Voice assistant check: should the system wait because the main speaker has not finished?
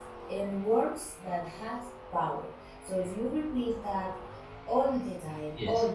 Yes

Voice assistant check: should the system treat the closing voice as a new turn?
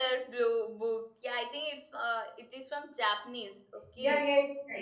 Yes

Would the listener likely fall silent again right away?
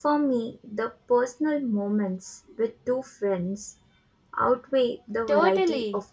No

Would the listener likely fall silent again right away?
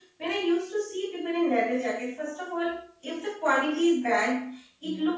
Yes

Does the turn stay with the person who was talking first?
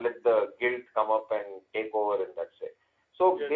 Yes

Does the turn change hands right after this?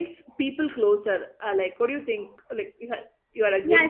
Yes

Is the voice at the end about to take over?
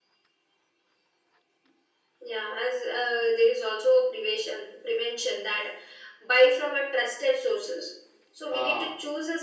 No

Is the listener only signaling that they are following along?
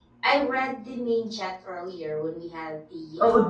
No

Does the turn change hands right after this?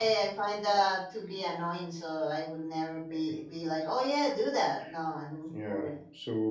Yes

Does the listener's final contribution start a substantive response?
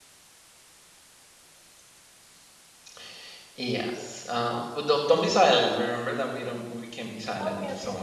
Yes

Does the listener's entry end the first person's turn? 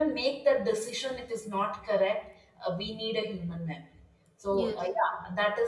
No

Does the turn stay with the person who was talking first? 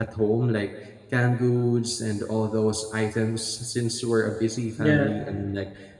Yes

